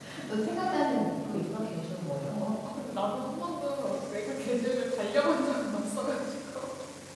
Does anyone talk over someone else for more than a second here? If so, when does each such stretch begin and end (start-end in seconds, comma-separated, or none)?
none